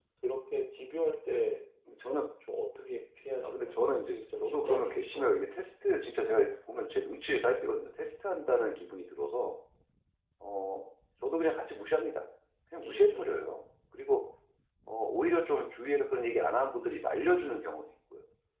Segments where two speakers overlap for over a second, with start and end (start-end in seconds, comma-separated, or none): 3.4-5.7